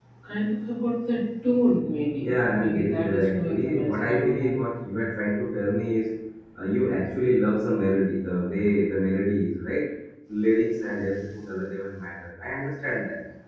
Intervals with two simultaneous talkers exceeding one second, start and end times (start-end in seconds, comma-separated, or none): 2.2-4.6